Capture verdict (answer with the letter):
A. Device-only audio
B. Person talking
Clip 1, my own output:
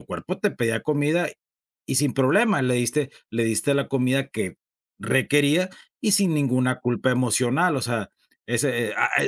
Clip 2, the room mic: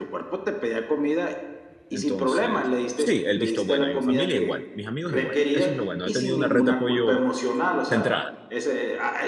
B